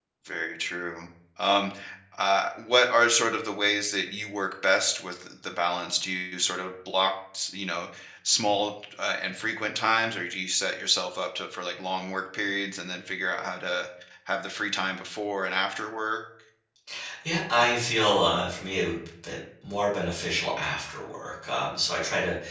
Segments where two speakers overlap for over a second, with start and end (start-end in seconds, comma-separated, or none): none